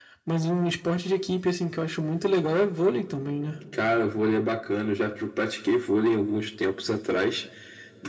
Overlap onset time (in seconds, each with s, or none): none